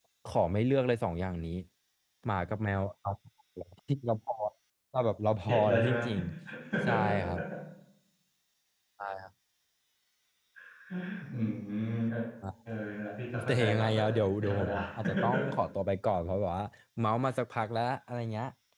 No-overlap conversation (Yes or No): No